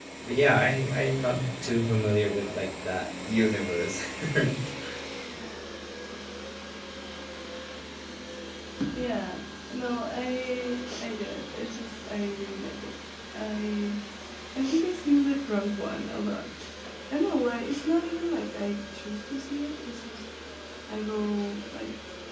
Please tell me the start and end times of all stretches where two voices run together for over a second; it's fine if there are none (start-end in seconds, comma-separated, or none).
none